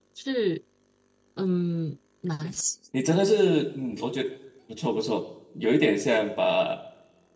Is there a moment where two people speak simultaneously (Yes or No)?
No